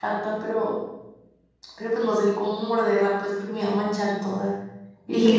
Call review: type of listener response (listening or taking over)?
taking over